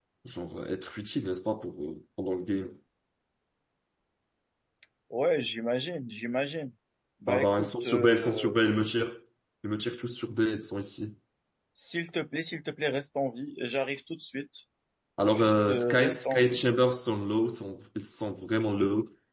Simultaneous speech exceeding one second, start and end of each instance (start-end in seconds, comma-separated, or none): 7.3-8.6, 15.3-16.6